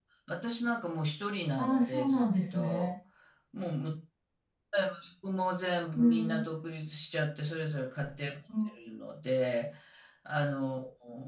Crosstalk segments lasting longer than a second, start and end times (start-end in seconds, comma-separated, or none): 1.6-2.9